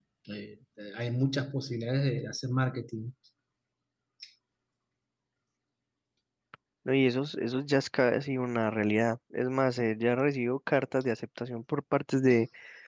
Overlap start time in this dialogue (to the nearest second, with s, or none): none